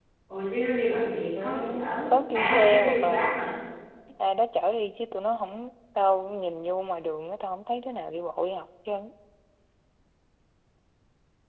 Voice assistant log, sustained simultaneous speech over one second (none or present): present